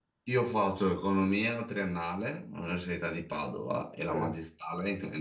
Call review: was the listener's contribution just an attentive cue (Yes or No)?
Yes